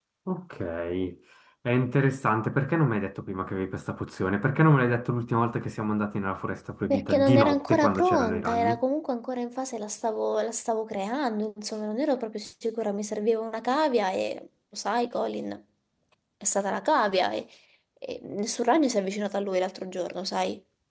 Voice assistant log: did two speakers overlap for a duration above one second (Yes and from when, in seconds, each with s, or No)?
Yes, from 6.9 s